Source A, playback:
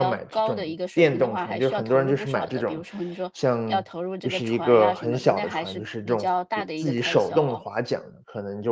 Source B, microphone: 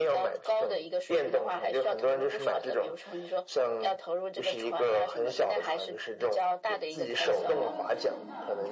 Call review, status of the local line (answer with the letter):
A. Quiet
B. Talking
B